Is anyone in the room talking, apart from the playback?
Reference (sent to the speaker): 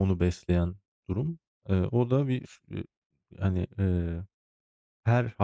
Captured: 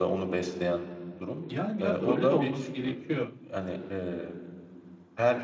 Yes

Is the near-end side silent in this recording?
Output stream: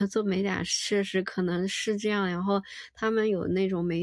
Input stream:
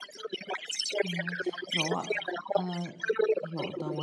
No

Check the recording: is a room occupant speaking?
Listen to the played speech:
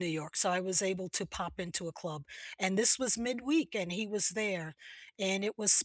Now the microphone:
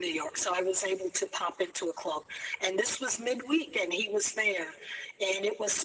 No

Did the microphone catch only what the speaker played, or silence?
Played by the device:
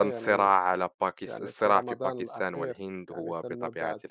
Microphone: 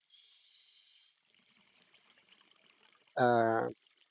No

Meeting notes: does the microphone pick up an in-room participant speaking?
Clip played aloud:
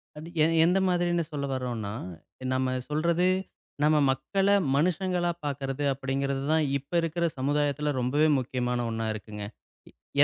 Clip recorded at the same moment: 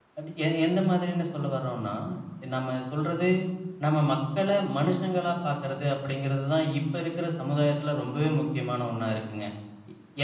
No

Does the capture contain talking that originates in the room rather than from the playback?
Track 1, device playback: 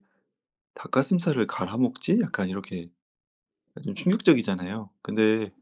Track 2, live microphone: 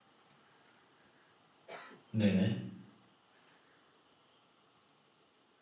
Yes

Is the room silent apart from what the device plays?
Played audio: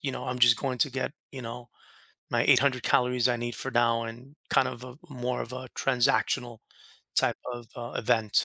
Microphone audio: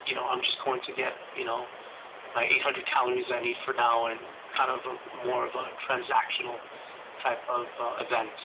Yes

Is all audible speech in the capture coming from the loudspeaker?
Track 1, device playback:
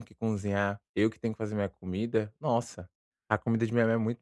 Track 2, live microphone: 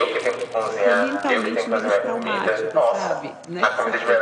No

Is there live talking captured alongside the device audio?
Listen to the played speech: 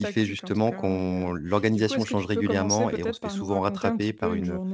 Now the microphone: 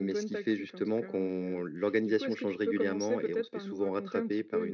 No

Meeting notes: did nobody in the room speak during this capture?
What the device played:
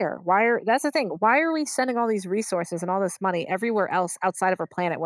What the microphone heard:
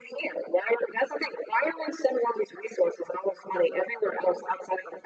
Yes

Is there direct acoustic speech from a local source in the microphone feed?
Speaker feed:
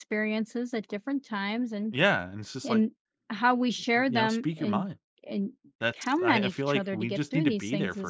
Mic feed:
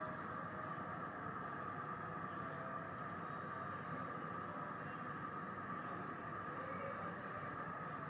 No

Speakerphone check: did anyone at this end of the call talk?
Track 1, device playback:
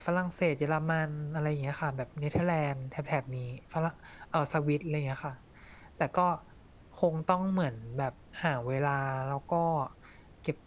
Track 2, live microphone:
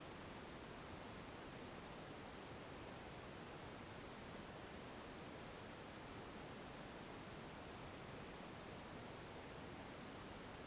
No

